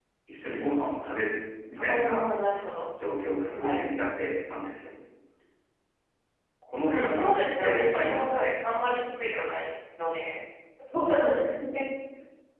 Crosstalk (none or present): present